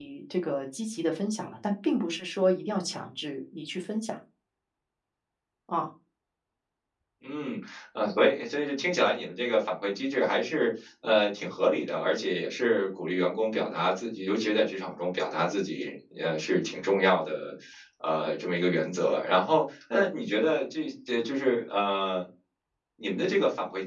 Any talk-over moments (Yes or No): No